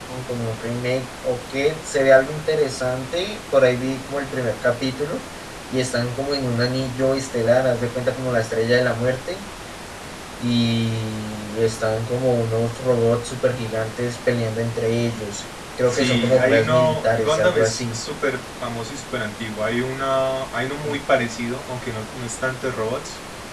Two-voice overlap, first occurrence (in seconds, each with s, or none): 15.9 s